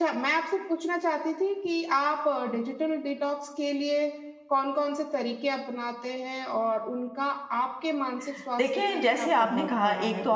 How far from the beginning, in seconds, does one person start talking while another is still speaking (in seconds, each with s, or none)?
8.6 s